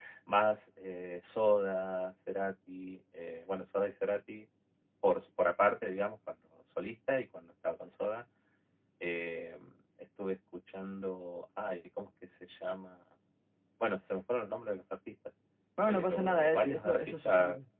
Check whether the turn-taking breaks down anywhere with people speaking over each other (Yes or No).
Yes